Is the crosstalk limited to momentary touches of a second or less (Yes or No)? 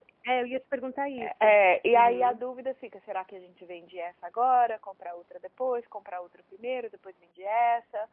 Yes